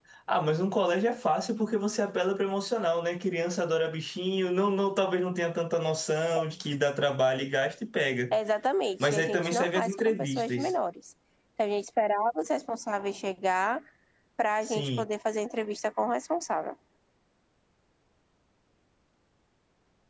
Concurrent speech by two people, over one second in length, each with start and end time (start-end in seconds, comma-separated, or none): 9.0-10.7